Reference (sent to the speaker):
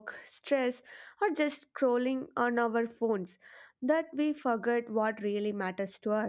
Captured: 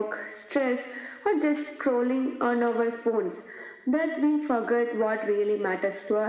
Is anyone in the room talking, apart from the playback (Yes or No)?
No